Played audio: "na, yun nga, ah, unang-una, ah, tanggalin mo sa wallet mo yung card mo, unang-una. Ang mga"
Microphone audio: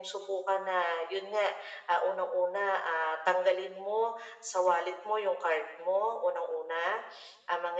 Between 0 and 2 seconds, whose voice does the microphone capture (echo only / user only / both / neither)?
echo only